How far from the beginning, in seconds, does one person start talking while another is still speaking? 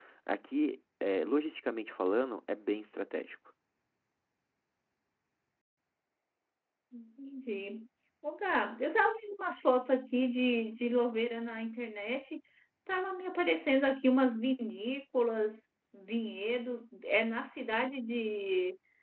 none

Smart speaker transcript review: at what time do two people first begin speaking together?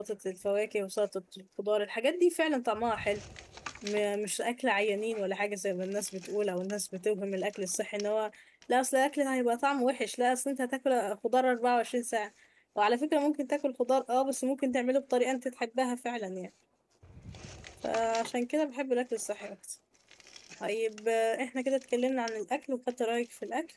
none

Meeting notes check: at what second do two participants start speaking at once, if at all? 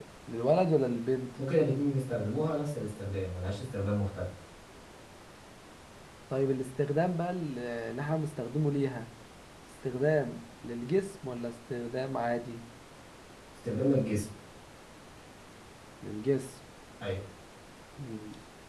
none

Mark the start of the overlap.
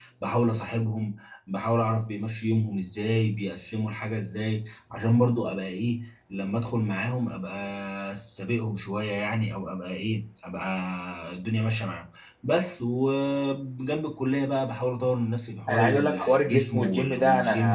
15.7 s

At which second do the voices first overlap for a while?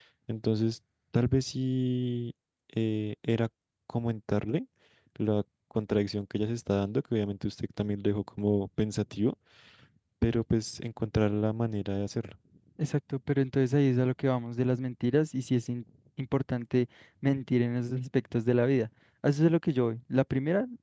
none

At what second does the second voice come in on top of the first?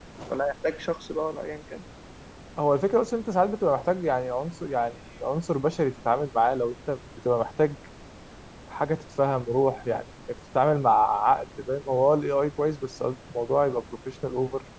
none

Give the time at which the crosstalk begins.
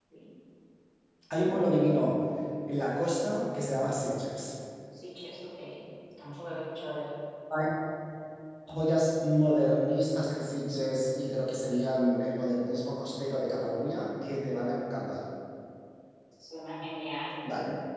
none

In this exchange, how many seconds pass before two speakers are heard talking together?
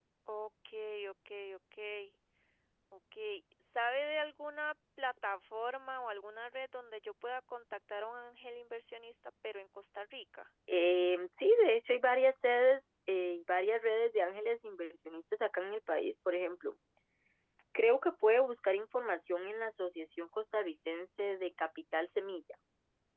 none

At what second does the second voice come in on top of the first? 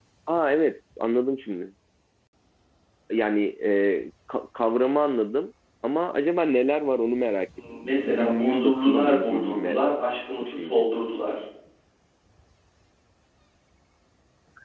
7.8 s

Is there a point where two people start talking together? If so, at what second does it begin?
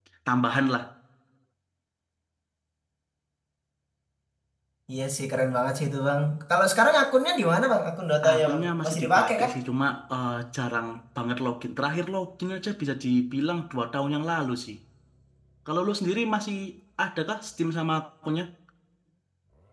8.2 s

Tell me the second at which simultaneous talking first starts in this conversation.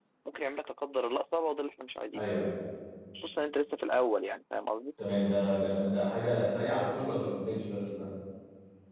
none

